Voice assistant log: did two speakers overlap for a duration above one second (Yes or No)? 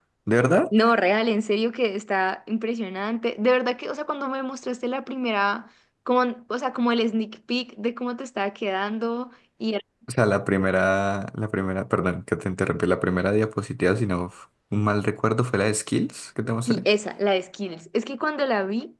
No